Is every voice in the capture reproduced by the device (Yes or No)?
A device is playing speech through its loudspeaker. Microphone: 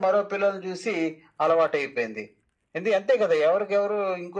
Yes